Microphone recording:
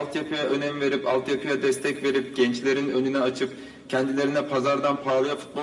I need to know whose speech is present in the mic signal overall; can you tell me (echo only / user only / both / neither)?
echo only